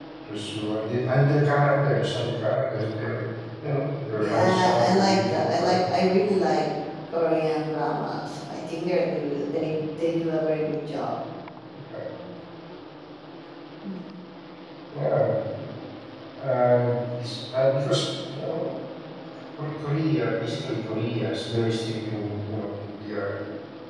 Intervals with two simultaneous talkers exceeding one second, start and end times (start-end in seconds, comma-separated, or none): 4.1-5.8